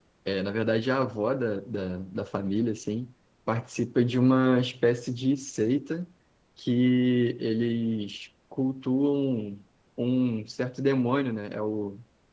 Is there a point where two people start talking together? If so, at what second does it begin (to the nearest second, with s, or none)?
none